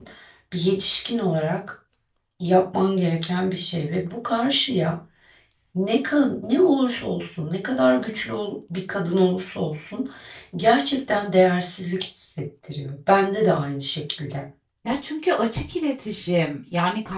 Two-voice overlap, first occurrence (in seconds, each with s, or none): none